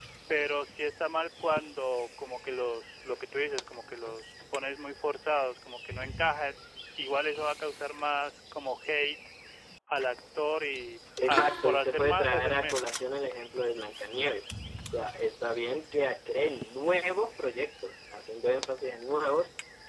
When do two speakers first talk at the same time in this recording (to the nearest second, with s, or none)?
11 s